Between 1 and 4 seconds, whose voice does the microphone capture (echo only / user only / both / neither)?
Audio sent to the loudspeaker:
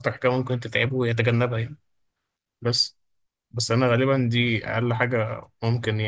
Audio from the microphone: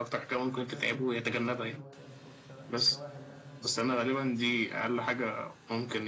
both